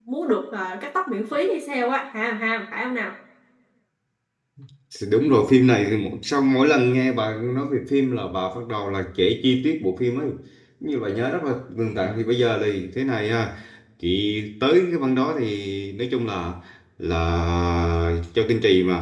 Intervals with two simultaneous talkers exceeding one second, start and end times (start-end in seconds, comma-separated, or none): none